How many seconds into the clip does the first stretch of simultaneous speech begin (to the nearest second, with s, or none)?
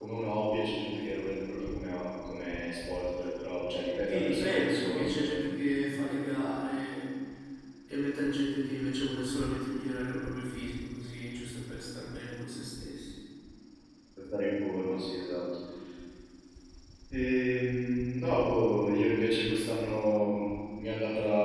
4 s